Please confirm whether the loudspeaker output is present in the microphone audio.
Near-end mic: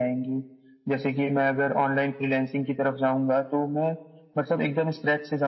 Yes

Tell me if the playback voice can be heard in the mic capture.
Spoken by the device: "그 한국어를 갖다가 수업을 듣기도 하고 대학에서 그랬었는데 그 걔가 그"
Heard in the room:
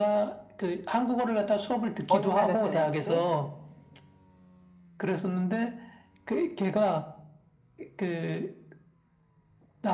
Yes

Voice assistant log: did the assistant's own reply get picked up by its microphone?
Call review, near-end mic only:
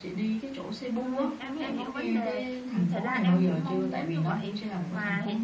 Yes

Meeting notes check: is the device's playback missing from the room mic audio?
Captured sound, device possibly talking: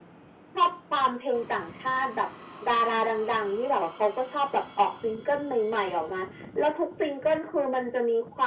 No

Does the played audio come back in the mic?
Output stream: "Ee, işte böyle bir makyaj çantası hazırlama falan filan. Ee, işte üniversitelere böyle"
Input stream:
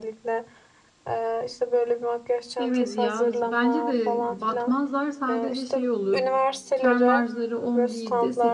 Yes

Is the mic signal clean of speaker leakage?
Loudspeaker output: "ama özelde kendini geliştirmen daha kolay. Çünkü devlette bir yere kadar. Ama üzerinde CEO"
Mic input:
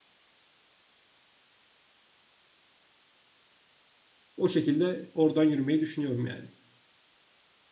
Yes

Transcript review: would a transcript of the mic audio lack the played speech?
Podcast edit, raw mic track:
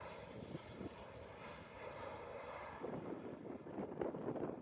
Yes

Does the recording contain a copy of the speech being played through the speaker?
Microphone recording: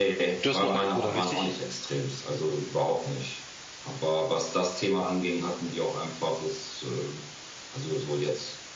Yes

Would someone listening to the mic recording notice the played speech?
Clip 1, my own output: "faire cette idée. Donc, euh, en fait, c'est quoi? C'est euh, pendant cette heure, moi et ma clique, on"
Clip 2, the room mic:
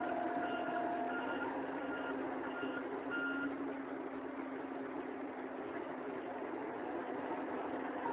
No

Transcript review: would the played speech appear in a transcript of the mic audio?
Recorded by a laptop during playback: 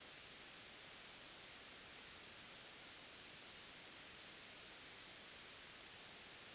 No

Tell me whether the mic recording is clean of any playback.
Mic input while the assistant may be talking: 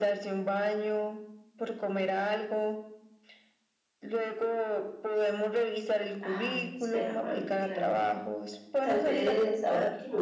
No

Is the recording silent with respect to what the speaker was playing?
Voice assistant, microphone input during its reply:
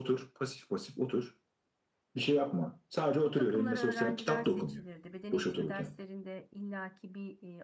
No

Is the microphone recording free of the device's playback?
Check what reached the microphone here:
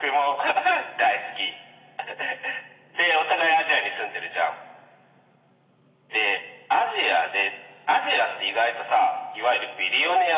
No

